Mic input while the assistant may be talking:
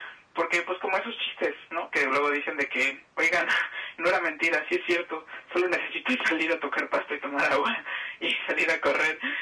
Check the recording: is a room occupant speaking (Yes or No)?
No